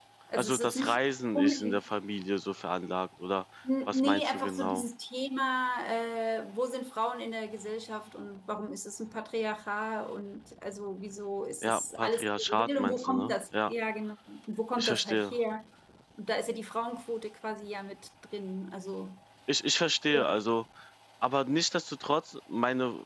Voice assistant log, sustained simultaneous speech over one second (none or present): present